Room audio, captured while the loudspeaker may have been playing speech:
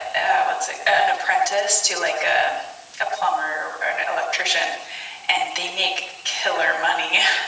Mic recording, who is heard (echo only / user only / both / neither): echo only